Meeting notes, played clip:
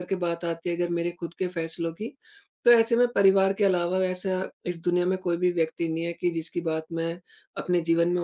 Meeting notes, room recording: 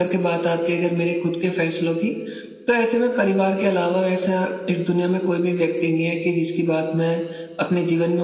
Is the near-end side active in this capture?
No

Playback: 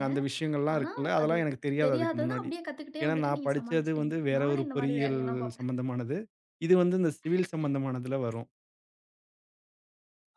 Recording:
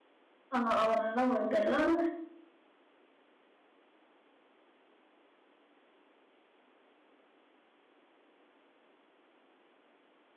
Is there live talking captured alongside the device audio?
Yes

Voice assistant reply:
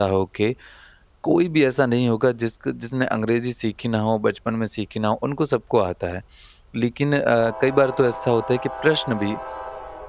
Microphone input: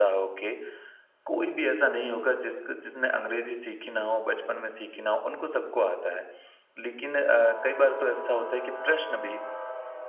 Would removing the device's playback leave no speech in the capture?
Yes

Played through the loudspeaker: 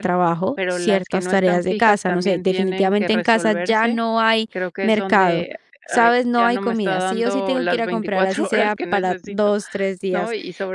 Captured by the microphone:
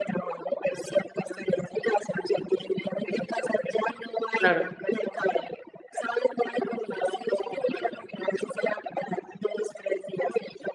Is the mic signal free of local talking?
No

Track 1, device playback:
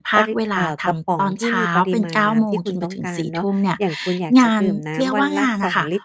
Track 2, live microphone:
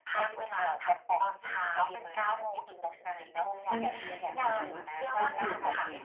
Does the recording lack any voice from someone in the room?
No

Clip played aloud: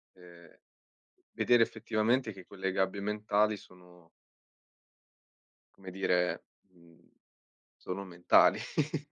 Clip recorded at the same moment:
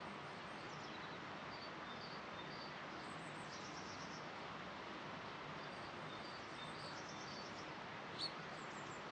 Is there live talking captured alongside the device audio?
No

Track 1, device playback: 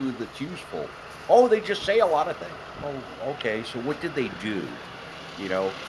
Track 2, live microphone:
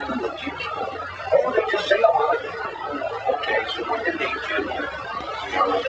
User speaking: No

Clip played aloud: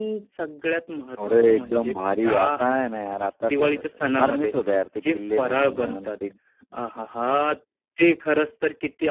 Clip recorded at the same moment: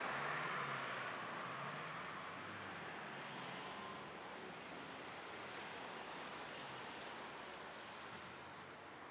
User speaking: No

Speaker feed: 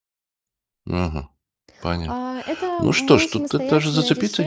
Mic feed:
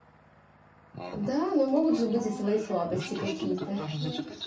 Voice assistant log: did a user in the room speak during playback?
Yes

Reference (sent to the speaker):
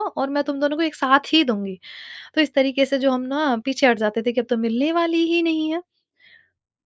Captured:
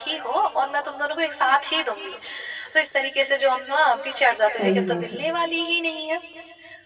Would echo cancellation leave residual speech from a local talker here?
Yes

